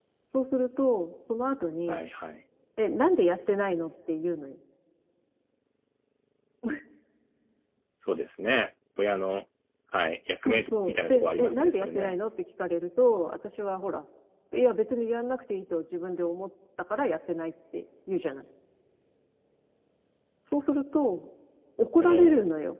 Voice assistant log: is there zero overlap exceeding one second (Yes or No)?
No